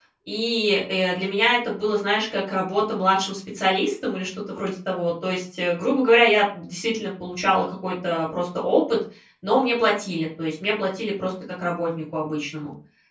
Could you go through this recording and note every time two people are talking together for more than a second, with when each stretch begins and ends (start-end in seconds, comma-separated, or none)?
none